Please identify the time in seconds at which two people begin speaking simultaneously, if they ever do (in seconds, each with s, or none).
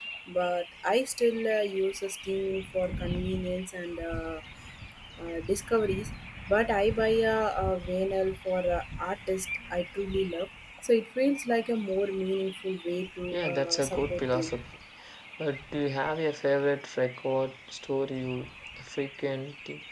13.3 s